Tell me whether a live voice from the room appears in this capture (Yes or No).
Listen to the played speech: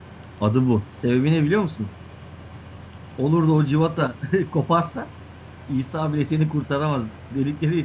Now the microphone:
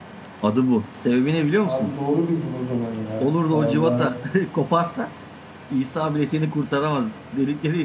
Yes